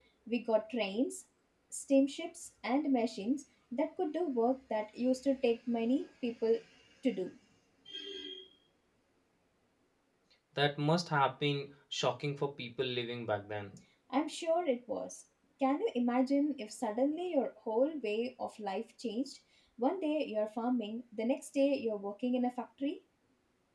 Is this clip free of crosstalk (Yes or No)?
Yes